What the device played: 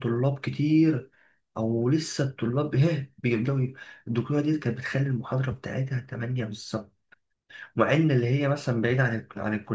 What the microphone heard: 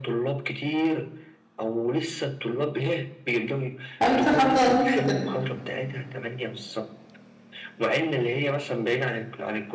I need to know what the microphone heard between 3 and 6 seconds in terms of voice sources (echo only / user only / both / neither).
both